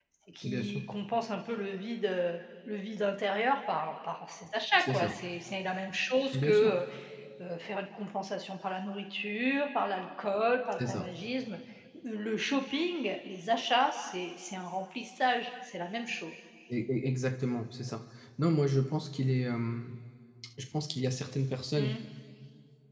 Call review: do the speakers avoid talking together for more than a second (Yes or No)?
Yes